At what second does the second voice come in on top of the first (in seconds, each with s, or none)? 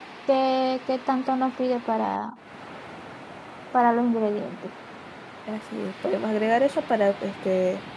none